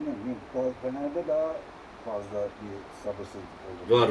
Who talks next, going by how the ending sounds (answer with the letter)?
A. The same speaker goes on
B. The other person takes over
B